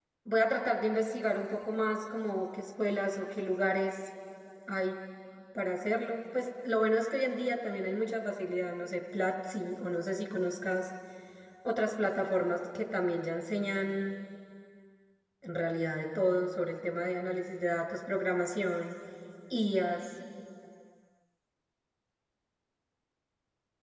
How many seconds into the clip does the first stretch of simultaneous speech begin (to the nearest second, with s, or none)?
none